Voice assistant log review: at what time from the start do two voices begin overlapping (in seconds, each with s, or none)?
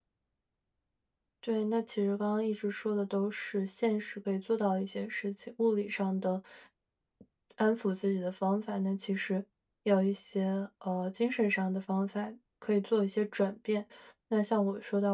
none